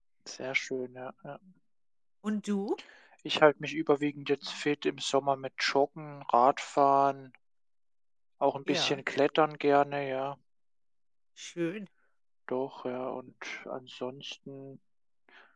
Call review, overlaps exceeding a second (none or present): none